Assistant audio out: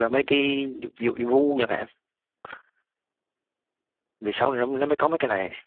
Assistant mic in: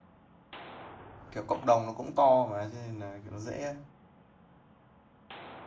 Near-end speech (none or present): present